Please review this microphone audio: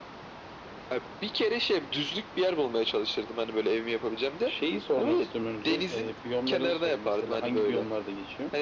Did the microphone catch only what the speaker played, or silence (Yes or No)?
Yes